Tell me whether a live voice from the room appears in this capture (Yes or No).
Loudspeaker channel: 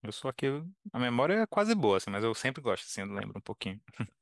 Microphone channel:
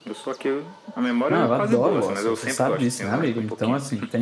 Yes